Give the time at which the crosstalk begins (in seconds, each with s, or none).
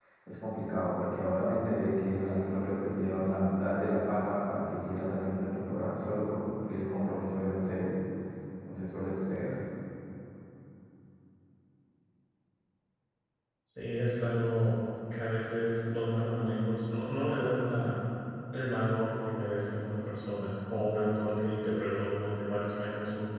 none